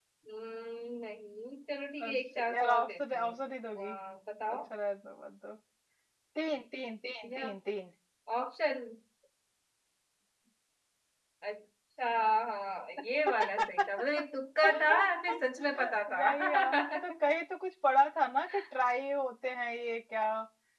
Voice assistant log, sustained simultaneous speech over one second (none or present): present